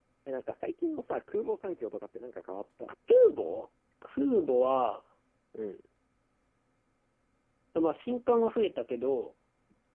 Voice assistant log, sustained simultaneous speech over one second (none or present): none